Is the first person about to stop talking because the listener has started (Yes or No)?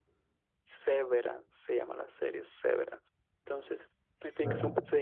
No